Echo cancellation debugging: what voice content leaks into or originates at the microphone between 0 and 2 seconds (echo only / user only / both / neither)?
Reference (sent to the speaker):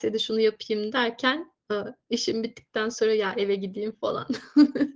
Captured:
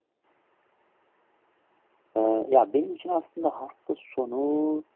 neither